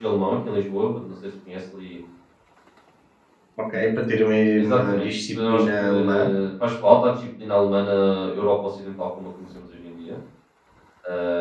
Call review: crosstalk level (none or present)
present